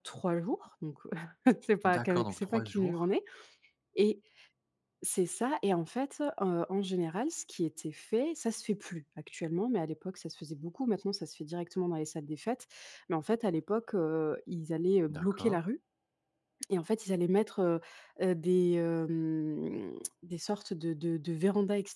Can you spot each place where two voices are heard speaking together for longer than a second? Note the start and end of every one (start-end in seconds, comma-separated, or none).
1.8-3.0